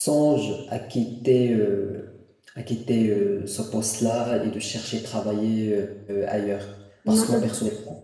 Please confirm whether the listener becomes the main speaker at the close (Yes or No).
No